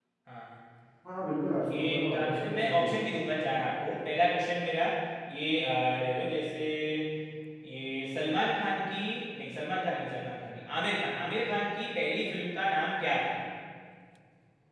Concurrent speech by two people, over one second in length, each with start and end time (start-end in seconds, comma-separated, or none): 1.8-3.0